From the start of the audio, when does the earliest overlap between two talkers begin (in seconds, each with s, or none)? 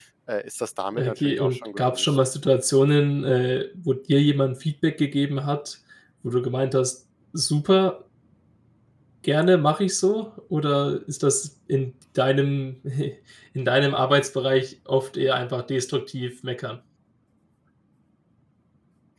0.9 s